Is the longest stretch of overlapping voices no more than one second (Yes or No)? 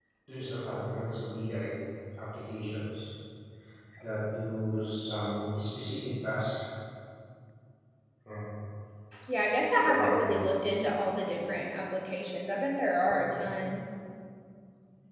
Yes